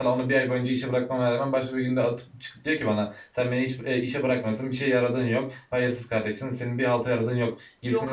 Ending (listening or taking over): listening